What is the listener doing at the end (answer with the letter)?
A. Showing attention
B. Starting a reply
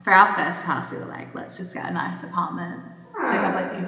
A